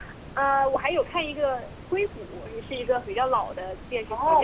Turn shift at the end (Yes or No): Yes